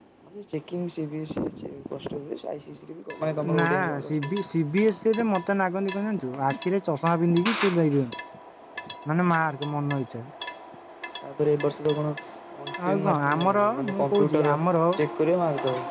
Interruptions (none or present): present